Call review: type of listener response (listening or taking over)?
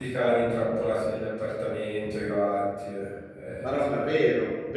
taking over